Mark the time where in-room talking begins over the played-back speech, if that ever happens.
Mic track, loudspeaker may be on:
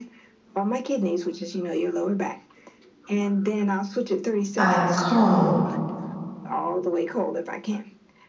4.6 s

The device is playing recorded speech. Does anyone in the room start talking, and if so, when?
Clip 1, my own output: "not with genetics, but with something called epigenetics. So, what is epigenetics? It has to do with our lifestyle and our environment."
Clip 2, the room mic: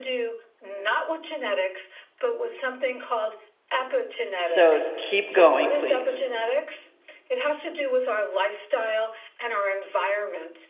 4.4 s

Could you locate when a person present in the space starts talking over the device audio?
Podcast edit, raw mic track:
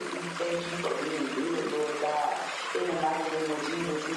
none

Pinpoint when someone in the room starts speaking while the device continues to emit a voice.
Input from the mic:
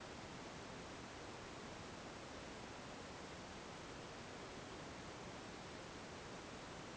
none

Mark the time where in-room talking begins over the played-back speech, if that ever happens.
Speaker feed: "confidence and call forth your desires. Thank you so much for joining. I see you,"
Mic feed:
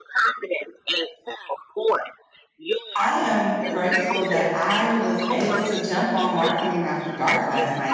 3.0 s

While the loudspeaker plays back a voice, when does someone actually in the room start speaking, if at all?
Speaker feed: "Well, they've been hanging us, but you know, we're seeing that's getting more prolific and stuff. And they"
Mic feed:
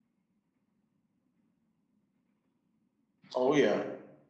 3.3 s

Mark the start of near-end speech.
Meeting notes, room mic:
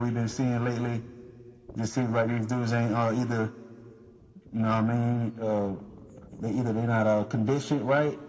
none

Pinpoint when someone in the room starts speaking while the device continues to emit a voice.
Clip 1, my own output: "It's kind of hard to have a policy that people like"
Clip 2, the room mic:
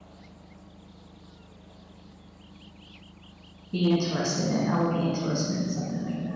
3.7 s

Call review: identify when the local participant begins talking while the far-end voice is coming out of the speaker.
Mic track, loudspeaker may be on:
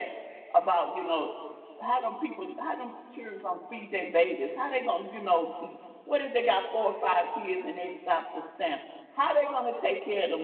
none

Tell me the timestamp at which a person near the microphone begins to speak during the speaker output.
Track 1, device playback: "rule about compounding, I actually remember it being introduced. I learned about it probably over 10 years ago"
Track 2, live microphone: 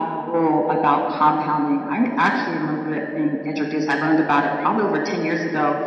none

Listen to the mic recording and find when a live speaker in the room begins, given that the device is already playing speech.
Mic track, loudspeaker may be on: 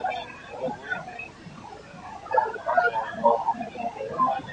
none

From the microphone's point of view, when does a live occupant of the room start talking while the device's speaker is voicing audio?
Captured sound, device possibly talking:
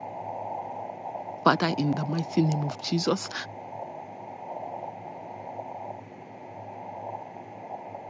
1.4 s

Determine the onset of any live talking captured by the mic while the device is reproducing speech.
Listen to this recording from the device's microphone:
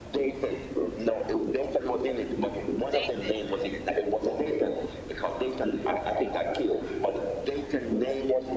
2.9 s

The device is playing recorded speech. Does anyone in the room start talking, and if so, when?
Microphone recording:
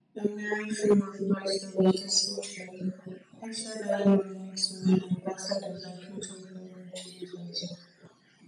none

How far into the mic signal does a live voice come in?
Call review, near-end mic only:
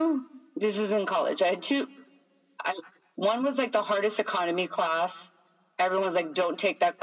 none

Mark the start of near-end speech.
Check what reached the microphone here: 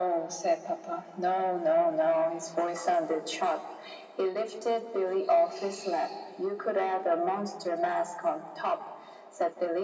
none

